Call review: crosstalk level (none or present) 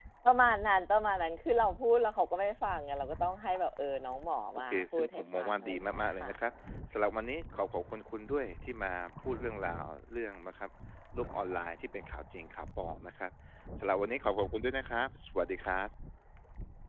present